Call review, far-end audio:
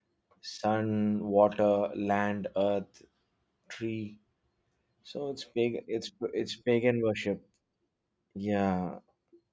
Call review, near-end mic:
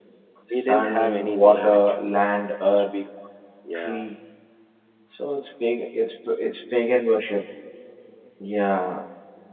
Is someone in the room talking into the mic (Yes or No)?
Yes